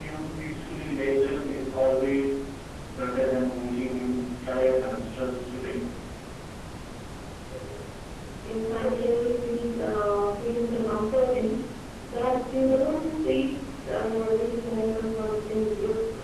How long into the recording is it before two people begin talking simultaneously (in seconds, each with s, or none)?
none